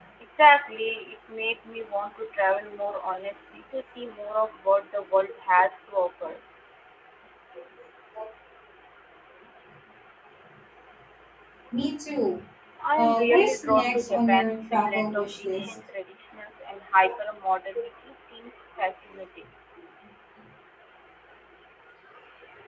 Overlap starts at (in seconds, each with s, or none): 13.0 s